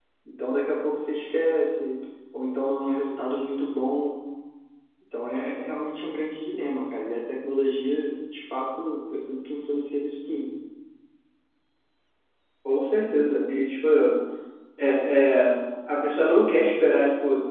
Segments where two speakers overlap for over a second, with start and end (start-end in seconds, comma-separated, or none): none